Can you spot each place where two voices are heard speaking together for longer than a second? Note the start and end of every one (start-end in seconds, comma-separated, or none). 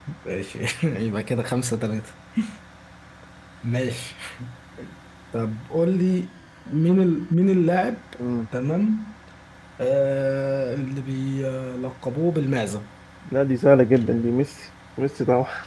none